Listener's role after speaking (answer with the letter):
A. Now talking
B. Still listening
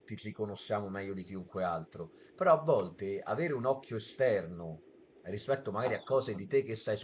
B